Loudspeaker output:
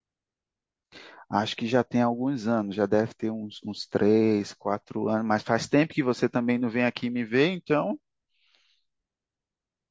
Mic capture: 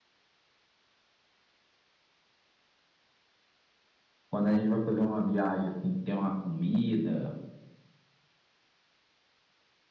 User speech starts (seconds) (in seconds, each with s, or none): 4.3 s